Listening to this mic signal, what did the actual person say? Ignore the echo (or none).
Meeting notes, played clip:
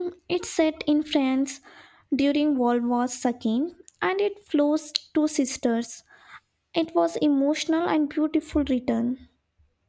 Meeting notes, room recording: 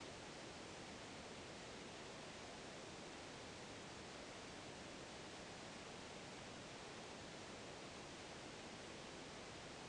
none